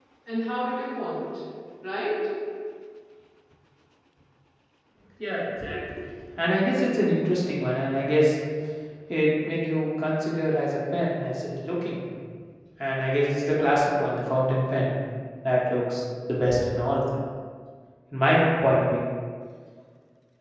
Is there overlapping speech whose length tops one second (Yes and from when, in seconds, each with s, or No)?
No